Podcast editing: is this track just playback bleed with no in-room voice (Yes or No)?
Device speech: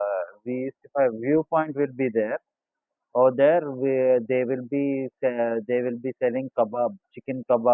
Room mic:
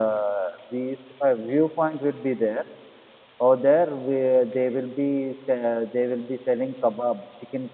Yes